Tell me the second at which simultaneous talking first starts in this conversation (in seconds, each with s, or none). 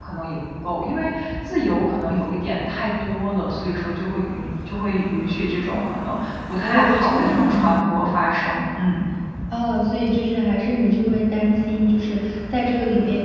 6.6 s